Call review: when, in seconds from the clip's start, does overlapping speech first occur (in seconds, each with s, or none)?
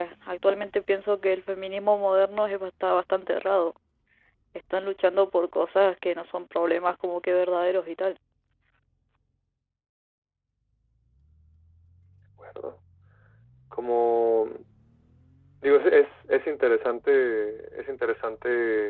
none